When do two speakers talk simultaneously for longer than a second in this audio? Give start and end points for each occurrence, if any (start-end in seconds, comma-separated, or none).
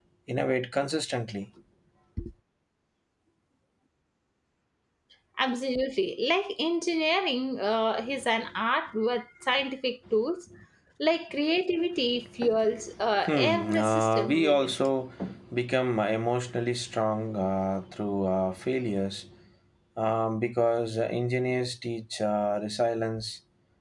13.3-14.8